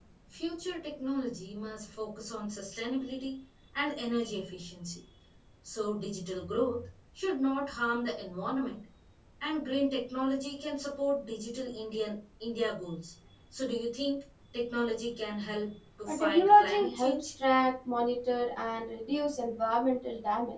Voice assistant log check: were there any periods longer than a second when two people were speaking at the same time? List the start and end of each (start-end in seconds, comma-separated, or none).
16.1-17.3